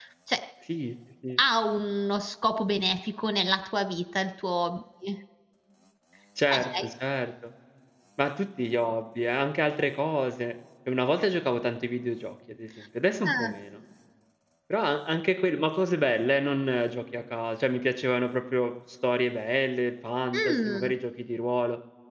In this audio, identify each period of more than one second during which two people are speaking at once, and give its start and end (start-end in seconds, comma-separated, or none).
none